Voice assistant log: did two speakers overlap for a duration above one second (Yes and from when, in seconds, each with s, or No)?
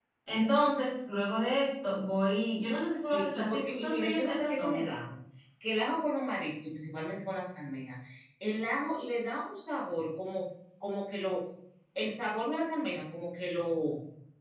Yes, from 3.1 s